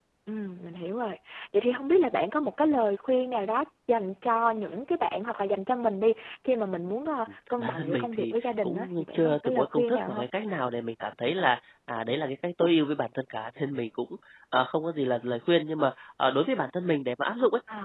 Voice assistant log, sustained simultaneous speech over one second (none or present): present